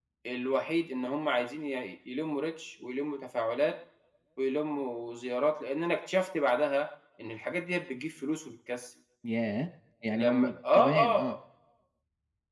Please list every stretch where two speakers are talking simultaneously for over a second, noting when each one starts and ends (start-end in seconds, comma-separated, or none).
10.1-11.3